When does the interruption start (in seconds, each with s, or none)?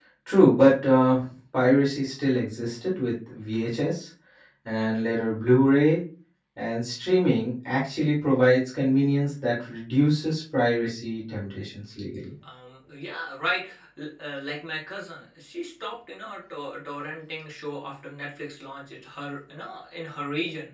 none